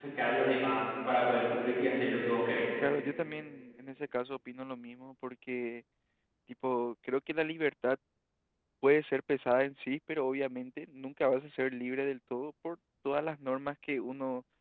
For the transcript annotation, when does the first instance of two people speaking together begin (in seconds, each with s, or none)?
none